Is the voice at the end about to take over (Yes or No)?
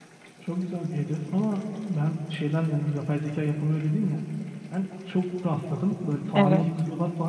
No